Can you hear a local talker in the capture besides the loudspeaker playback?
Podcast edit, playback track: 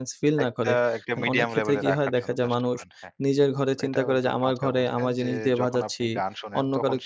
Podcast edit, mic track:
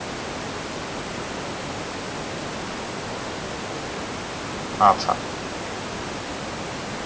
Yes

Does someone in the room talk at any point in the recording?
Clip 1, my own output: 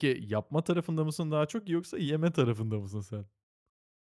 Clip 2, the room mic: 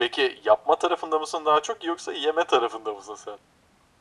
No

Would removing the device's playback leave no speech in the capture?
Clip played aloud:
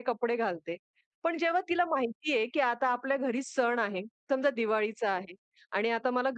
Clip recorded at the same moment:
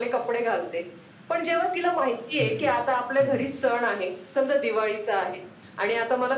No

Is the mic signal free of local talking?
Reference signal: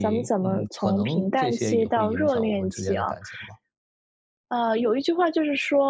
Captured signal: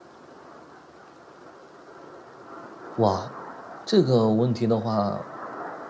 No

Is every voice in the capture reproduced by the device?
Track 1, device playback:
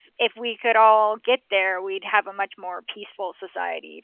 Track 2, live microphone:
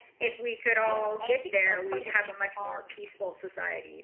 No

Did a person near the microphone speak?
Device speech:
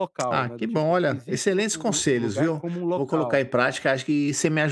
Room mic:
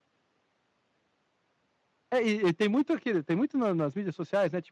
Yes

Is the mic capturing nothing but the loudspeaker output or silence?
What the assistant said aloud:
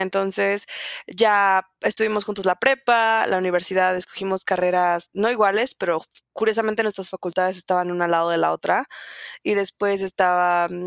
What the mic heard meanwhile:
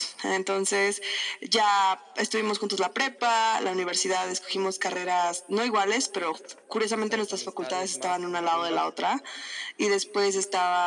No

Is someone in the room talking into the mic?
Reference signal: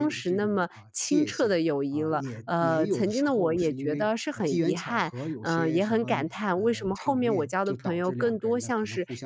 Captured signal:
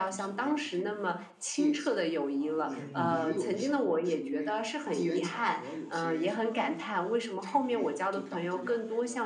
Yes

